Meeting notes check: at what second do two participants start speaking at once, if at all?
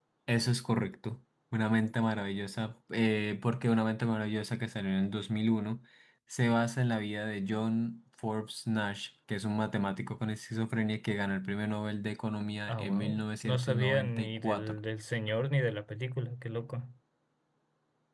12.7 s

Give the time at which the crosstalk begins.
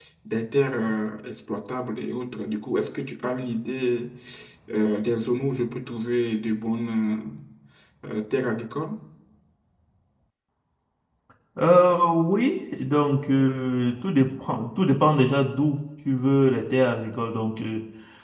none

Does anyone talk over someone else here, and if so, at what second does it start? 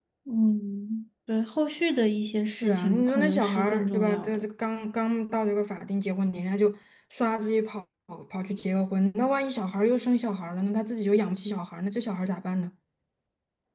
2.5 s

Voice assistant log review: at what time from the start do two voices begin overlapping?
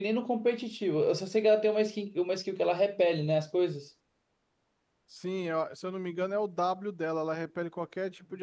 none

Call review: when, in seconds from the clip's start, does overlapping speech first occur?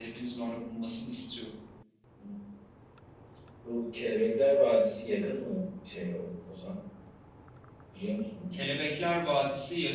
none

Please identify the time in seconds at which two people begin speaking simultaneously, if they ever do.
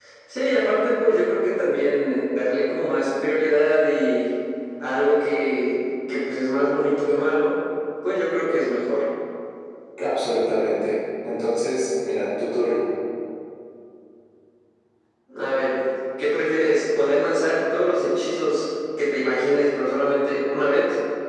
none

